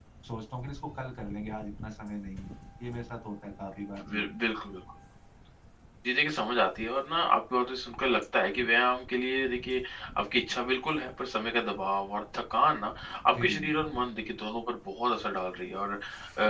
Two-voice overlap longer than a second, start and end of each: none

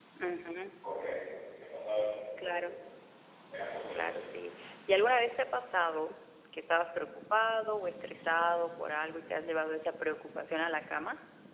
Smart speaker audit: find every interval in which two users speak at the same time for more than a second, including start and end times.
none

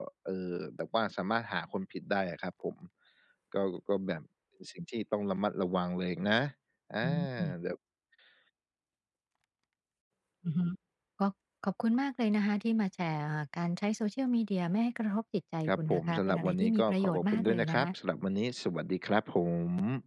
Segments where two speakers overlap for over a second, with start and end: 15.7-17.9

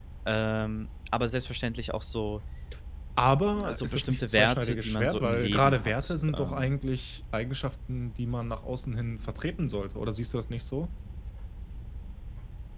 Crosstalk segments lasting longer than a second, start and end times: 3.6-6.7

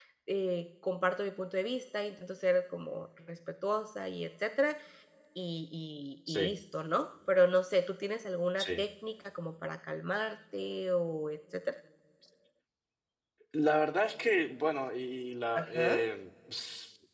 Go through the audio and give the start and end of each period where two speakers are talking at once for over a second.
none

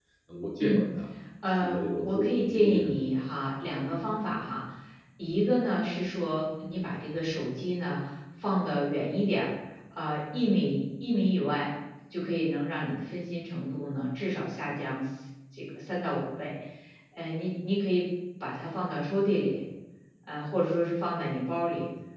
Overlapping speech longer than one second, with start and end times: 1.5-3.0

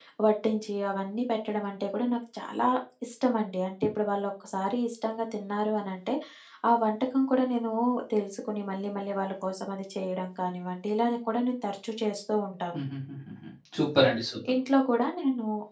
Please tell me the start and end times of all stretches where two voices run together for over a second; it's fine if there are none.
none

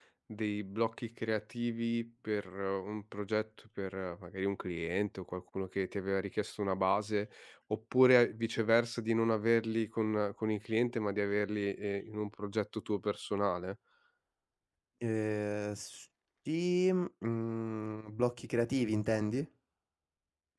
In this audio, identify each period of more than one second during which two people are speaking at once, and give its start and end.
none

